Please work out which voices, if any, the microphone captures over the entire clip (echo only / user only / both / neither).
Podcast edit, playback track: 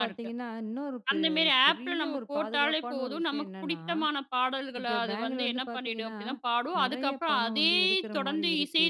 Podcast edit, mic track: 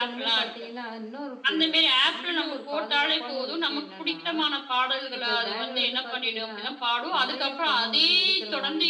echo only